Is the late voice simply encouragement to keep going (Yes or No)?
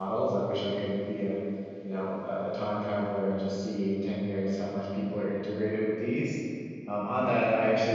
Yes